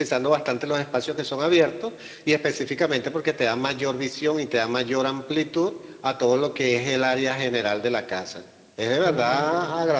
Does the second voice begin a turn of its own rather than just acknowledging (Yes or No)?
No